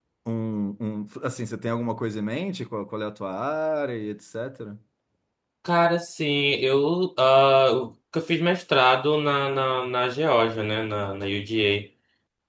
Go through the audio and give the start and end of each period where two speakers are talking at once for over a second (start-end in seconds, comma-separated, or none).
none